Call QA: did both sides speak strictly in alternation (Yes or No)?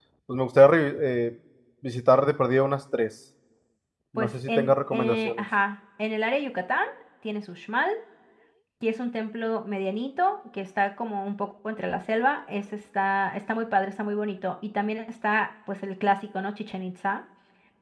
No